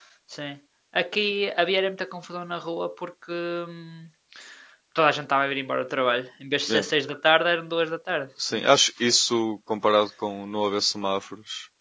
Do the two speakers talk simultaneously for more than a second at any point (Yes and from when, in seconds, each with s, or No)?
No